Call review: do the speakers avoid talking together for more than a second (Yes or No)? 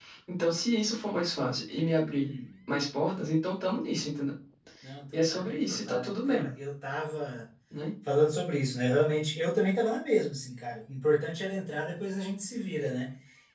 No